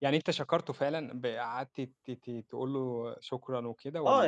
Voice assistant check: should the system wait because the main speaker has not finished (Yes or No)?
No